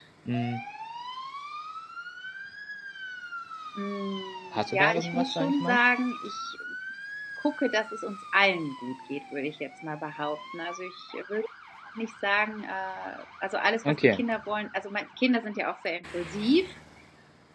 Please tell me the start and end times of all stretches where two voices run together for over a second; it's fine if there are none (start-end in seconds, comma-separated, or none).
4.5-5.8